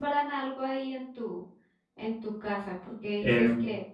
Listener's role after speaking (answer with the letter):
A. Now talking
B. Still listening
B